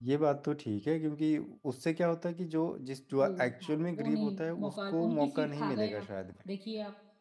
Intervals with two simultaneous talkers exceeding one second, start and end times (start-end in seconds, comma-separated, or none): 3.2-6.1